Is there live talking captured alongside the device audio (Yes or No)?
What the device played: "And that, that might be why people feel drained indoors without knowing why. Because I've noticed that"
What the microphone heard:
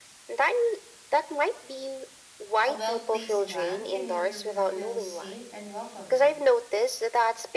Yes